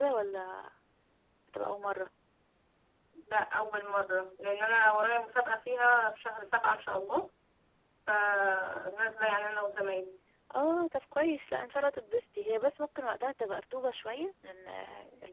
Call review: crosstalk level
none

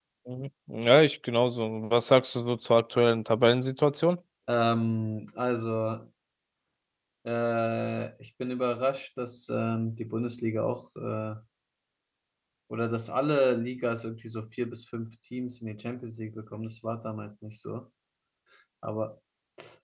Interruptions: none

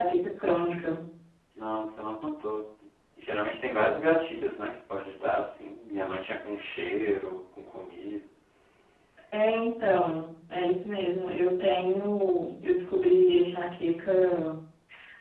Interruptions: none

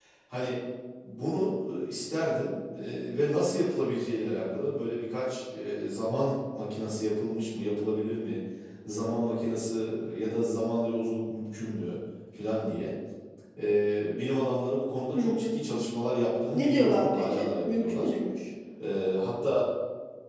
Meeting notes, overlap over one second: present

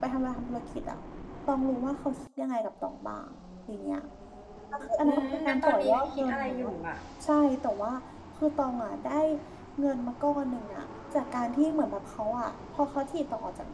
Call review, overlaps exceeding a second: present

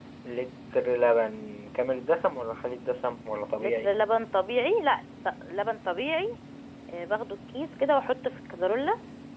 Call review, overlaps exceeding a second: none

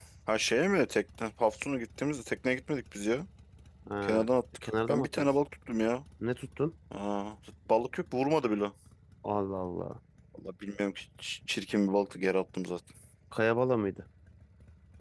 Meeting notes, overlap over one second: present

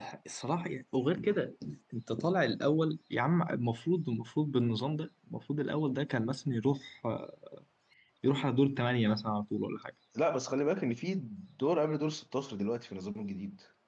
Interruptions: none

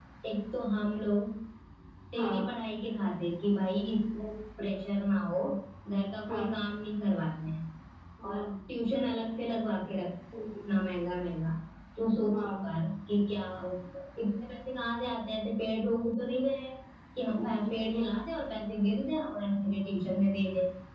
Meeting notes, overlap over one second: none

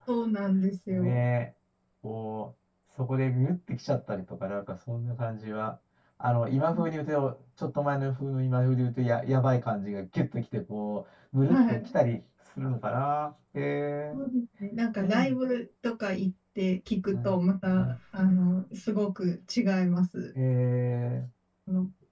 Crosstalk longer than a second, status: none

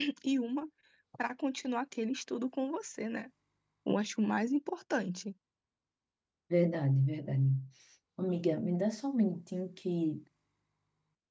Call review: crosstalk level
none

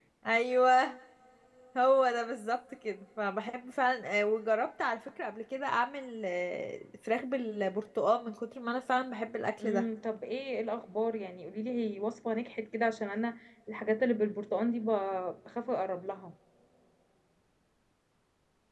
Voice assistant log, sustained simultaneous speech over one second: none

